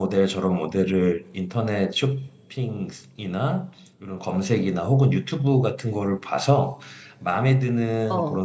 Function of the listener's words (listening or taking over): listening